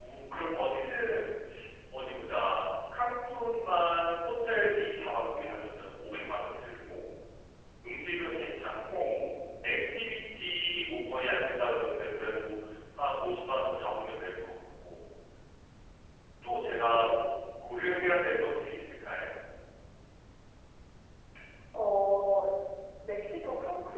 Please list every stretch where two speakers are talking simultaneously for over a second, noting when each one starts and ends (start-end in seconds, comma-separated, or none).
none